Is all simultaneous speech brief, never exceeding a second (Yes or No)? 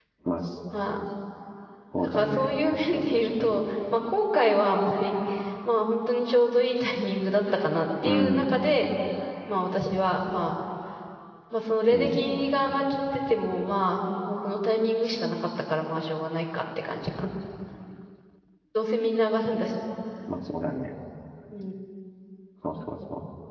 No